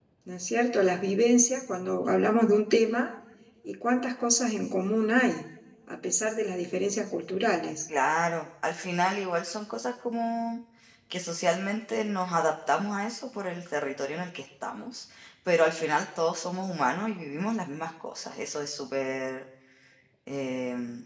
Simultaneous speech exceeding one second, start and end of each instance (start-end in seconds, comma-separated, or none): none